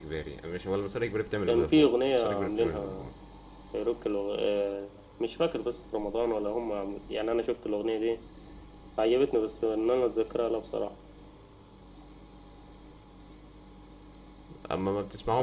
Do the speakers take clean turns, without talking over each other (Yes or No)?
No